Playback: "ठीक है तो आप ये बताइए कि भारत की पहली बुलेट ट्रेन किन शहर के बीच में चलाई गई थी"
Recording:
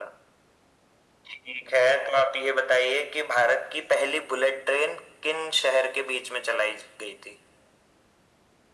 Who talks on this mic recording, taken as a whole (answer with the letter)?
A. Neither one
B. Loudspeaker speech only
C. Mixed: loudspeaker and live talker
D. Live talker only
B